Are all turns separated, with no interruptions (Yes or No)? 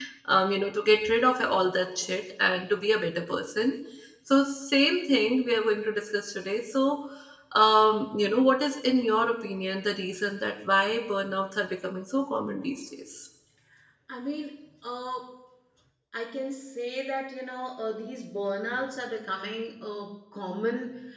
Yes